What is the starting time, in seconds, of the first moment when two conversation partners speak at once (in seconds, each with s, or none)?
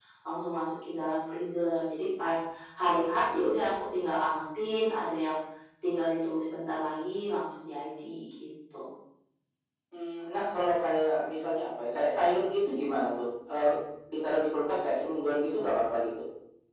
none